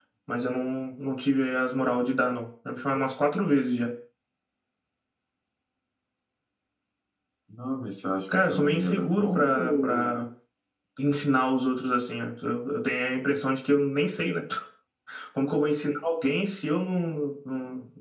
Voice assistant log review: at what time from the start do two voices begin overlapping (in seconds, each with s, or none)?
8.4 s